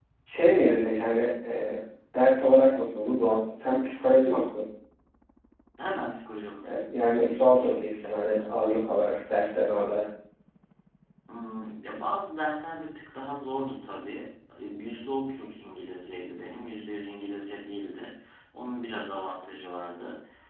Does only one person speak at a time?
Yes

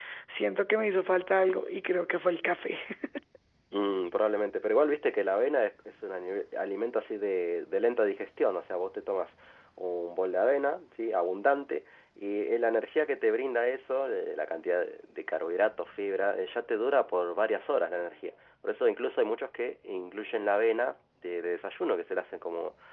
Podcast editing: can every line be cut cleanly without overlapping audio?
Yes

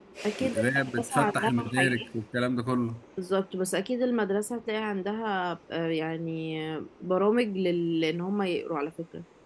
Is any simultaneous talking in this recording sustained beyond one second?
Yes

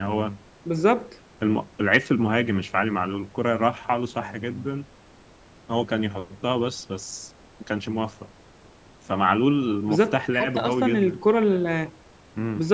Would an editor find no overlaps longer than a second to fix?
No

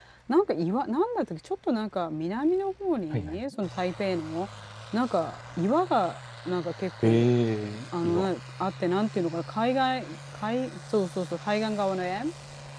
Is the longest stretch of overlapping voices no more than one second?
Yes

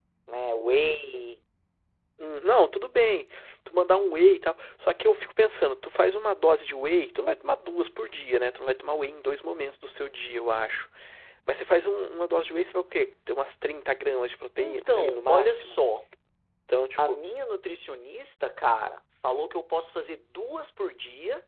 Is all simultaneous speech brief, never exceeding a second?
No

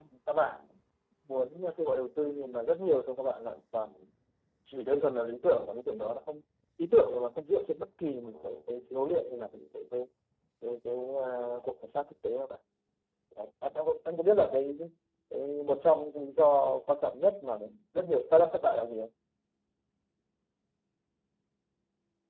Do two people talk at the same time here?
No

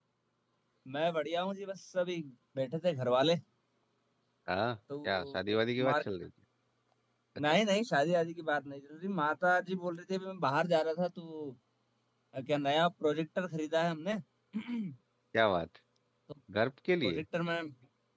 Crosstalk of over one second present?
No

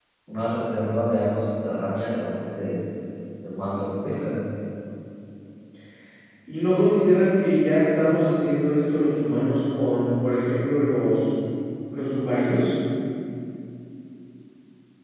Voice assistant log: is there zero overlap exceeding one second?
Yes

